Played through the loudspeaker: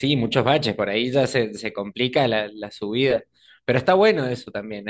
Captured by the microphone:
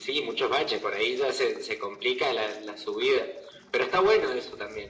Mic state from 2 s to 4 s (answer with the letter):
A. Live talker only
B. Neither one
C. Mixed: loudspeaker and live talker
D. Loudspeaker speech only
D